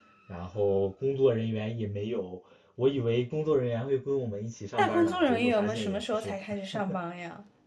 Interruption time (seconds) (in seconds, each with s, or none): 4.8 s